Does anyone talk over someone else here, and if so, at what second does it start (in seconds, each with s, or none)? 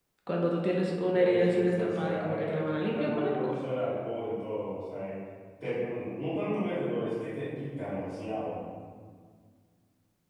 1.1 s